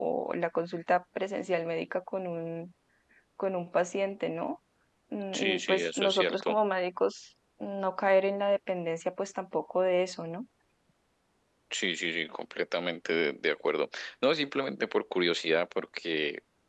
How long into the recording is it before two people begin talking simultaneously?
5.3 s

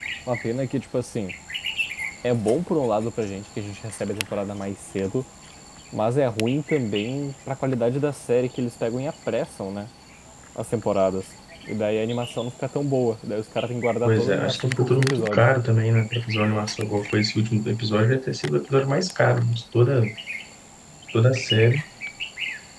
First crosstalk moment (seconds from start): 14.1 s

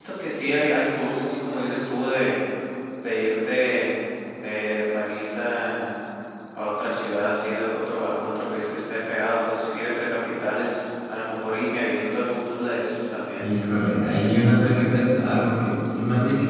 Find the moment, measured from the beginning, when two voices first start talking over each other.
none

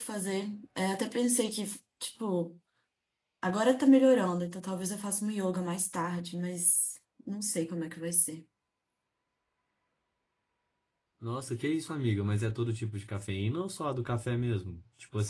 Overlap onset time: none

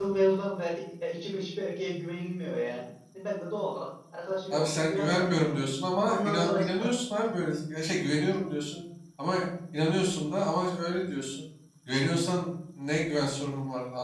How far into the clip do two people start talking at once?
4.5 s

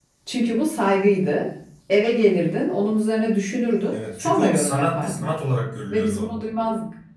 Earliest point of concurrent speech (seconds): 3.9 s

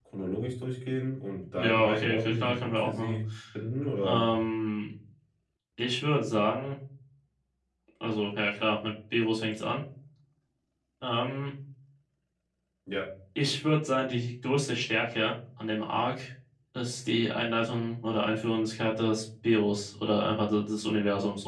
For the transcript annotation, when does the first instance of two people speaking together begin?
1.6 s

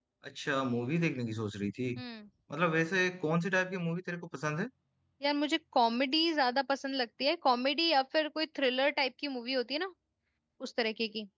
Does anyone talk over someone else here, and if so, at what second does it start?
none

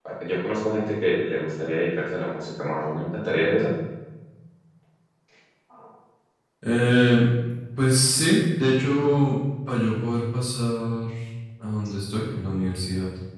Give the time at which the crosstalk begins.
none

